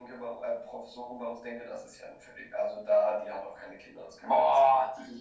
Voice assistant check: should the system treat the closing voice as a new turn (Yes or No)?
Yes